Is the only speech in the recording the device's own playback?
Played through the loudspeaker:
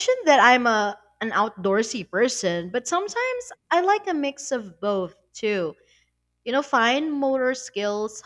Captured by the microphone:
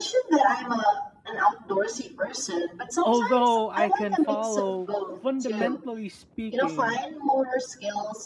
No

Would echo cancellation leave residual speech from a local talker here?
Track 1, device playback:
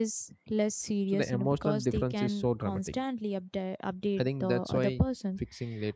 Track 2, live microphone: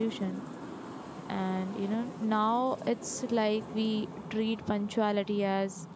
Yes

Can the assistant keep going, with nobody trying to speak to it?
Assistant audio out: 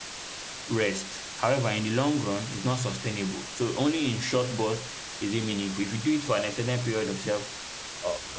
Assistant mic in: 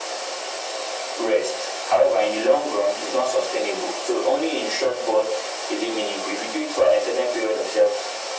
Yes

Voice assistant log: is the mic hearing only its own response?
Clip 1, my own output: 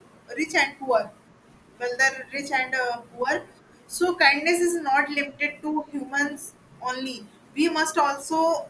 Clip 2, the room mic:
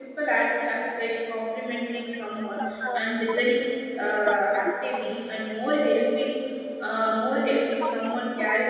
No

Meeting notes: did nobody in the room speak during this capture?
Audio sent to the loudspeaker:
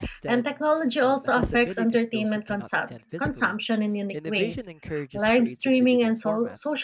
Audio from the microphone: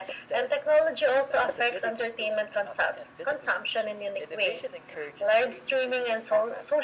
Yes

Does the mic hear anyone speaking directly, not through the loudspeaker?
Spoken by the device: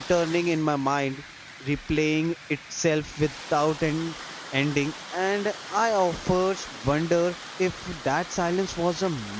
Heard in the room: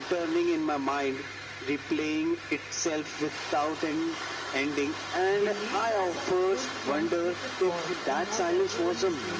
Yes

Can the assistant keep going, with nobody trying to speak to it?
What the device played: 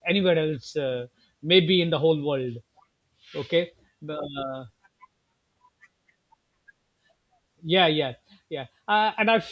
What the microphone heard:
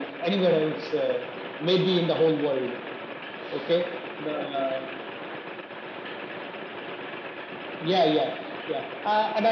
Yes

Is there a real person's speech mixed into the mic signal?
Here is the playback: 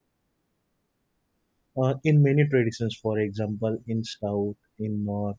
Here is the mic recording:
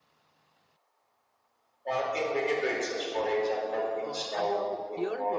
Yes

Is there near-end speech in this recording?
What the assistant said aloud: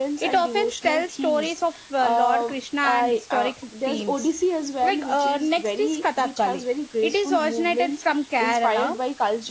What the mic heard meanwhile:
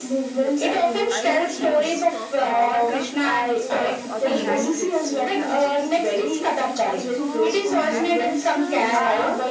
Yes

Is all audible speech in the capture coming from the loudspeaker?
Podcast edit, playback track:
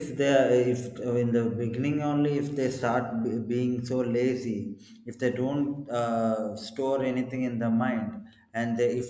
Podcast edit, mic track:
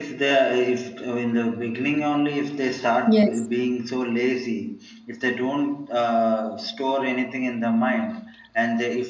No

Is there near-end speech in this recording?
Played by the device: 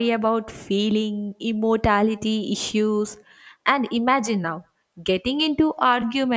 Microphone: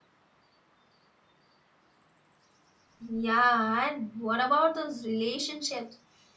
Yes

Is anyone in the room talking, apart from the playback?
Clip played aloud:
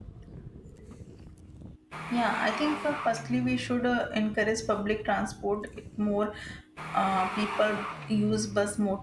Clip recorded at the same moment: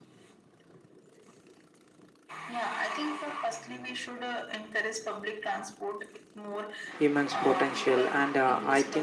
Yes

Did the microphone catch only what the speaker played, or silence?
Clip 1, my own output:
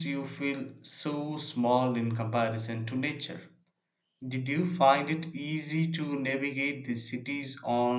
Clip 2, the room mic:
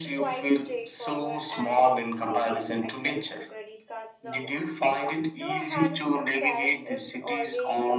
No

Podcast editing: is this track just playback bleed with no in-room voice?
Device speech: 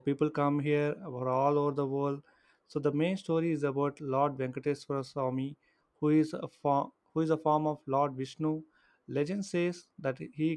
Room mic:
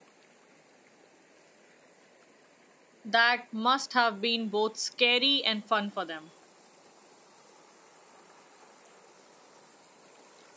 No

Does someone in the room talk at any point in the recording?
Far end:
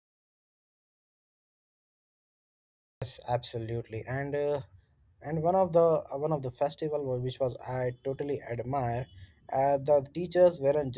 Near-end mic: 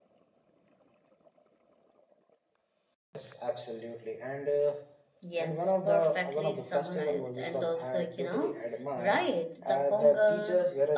Yes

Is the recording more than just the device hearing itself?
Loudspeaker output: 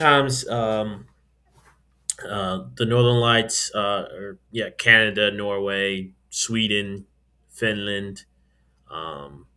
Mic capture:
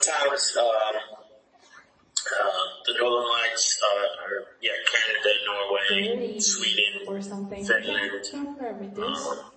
Yes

